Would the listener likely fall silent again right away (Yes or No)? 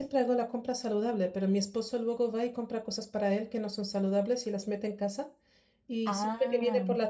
Yes